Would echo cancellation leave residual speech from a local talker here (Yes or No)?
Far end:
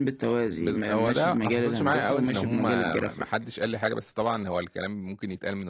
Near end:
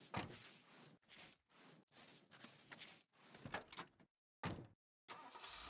No